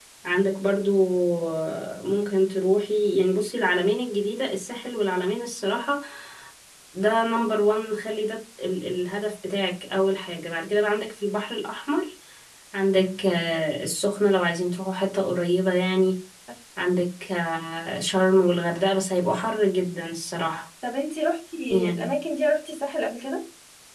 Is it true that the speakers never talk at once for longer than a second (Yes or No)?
Yes